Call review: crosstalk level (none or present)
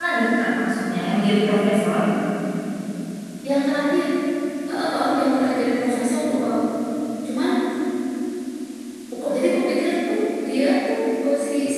none